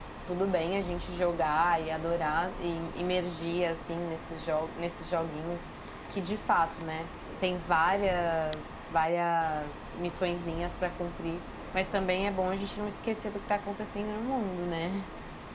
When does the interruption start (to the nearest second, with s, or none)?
none